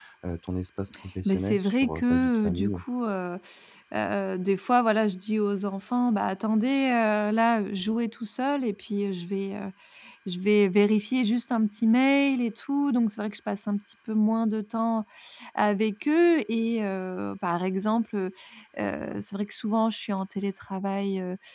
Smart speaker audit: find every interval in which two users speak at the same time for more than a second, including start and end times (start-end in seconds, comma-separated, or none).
1.2-2.8